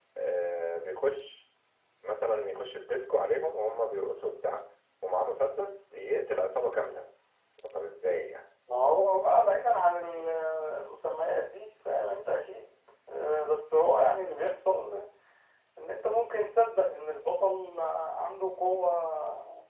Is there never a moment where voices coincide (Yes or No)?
Yes